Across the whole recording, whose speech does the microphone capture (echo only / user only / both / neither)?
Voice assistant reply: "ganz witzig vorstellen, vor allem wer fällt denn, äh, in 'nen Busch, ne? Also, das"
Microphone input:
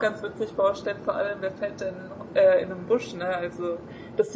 echo only